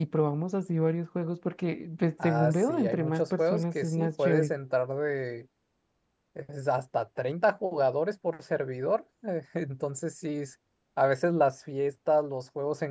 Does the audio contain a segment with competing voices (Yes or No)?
Yes